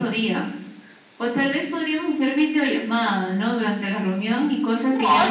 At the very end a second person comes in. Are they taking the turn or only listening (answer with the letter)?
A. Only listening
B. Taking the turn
B